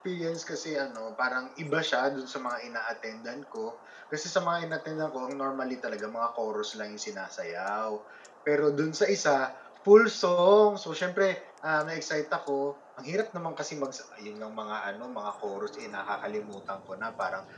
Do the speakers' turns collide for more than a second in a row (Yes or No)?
No